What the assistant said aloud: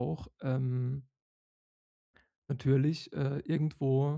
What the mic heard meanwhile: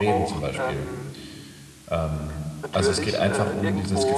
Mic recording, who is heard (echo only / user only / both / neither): both